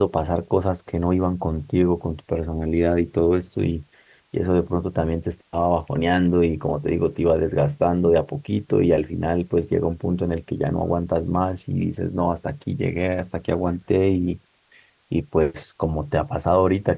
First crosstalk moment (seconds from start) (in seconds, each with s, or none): none